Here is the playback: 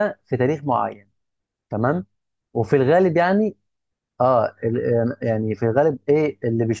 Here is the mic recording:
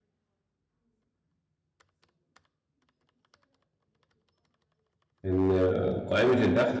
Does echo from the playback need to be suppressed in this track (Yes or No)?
No